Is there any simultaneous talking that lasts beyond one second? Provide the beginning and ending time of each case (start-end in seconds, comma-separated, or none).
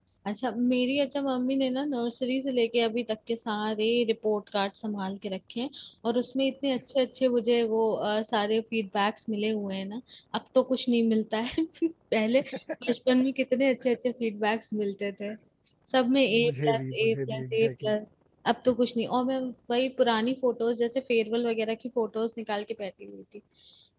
16.4-17.9